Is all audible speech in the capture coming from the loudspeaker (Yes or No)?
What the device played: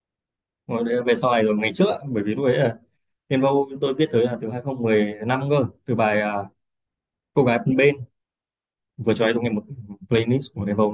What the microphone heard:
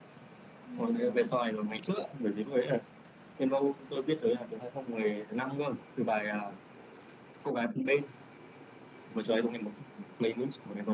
No